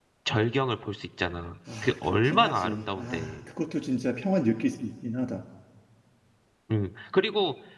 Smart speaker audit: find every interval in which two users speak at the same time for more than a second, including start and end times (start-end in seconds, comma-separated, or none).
1.8-3.4